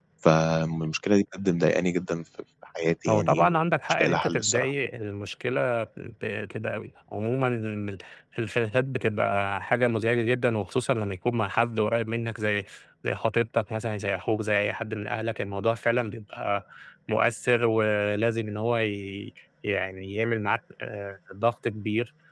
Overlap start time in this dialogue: 3.1 s

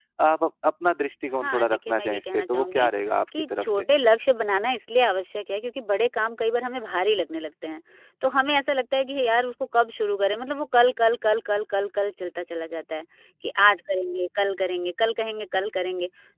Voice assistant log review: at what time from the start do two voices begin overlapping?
1.4 s

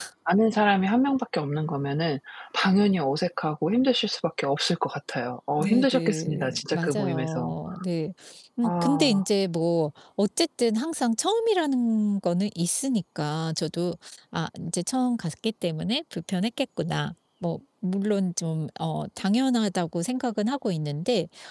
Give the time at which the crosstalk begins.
5.6 s

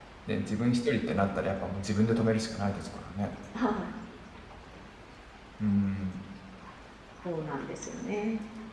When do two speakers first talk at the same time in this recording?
none

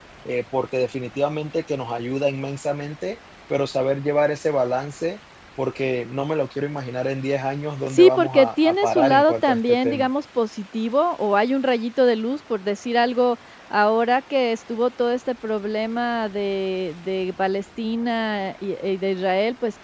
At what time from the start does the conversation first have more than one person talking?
7.9 s

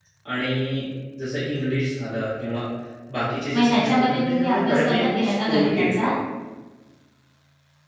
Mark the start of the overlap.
3.6 s

